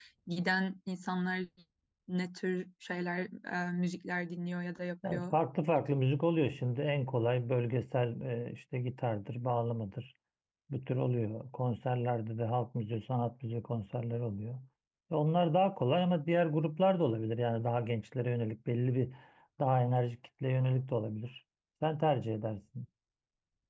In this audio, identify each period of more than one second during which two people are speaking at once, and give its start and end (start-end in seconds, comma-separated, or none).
none